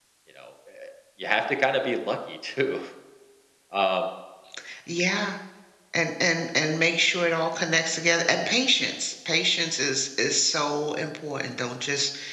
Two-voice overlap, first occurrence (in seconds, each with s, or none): none